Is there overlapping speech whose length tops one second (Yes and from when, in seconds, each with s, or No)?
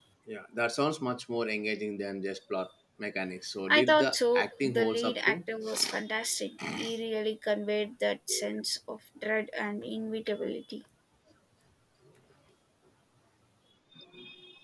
Yes, from 3.7 s